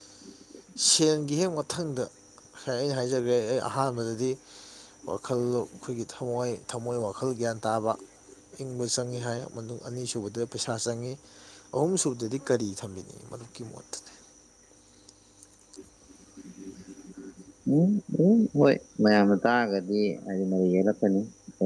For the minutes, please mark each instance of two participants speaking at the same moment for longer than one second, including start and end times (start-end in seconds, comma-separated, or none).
none